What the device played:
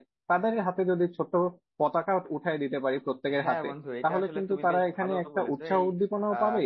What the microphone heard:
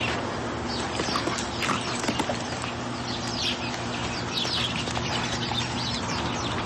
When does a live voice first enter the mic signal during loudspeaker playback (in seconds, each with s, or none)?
none